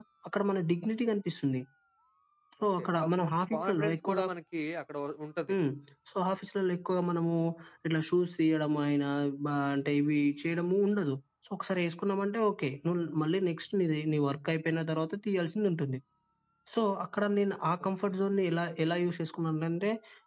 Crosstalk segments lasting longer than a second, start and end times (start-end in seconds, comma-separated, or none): 2.8-4.2